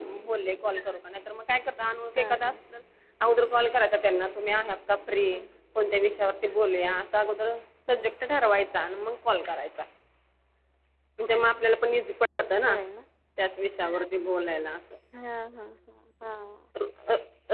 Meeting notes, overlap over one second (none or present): none